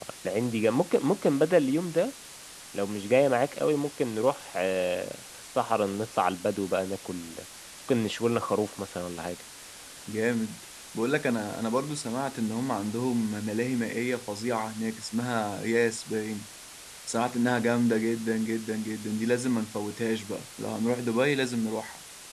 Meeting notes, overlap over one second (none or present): none